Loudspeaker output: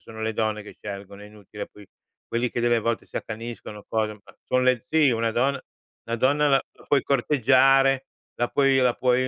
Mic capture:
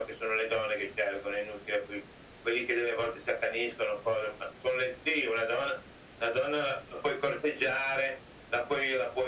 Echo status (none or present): present